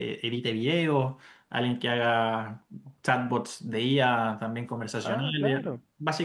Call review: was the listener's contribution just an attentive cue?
Yes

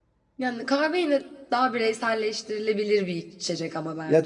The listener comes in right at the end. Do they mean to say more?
Yes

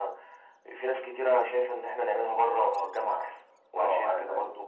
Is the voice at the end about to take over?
Yes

